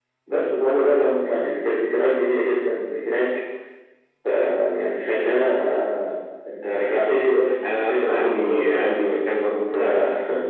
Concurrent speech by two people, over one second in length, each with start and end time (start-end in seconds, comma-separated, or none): 7.6-9.1